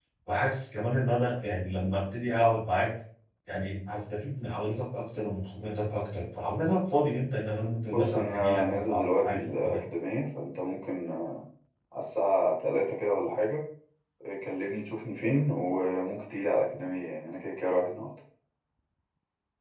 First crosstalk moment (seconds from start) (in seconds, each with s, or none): 7.9 s